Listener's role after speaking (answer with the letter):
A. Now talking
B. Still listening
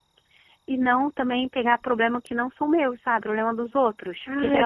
A